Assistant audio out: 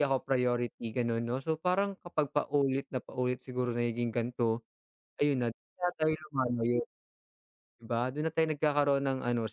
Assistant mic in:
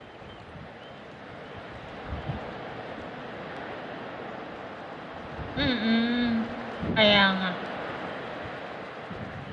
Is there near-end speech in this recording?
Yes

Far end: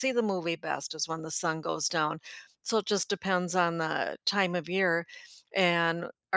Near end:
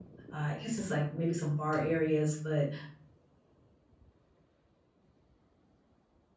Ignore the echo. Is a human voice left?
Yes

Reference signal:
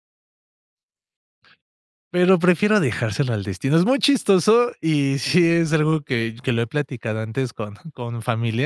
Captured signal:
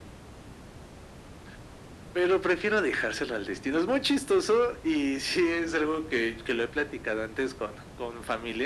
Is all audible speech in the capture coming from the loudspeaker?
Yes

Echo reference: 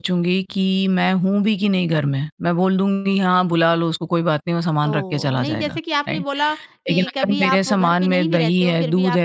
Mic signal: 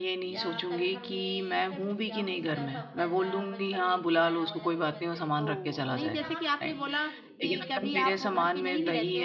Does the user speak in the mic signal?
Yes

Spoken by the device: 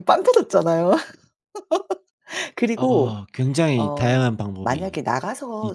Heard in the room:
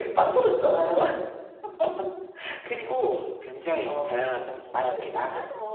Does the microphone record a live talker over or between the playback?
Yes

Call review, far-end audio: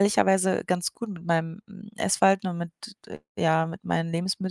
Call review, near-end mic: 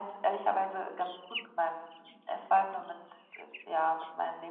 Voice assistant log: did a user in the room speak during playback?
No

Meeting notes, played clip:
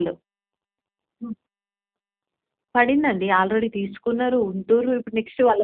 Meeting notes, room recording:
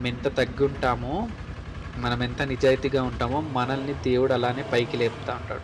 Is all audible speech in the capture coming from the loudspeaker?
No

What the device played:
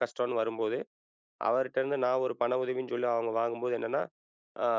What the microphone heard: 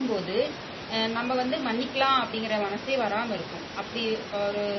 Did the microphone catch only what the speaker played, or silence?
No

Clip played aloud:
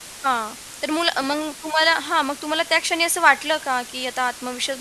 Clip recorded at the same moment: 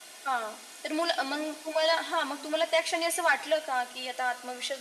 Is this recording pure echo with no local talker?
Yes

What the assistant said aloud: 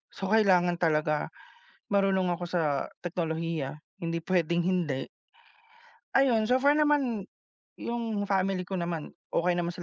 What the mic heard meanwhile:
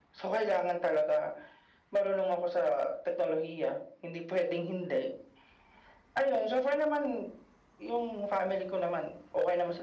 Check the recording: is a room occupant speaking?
No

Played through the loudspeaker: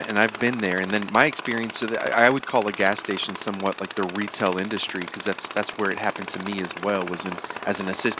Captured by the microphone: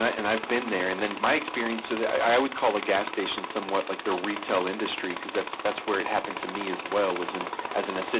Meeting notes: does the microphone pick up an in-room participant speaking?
No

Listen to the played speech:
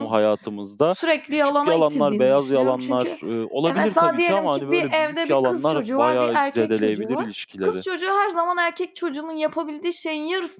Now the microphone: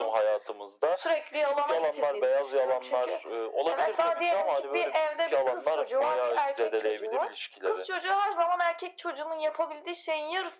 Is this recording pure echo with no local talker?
Yes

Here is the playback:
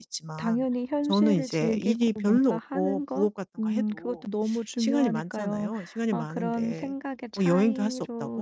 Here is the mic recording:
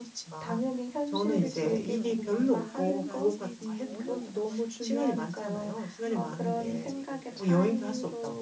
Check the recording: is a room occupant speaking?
Yes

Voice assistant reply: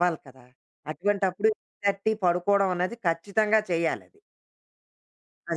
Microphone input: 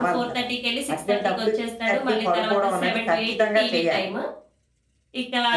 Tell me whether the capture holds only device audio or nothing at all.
No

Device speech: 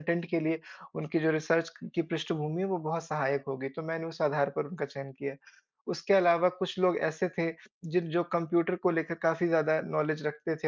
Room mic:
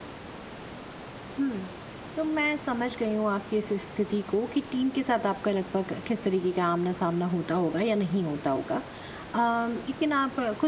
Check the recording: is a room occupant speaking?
Yes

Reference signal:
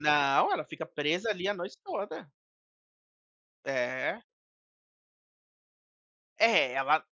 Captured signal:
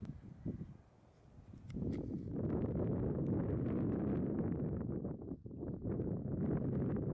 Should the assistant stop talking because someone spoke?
No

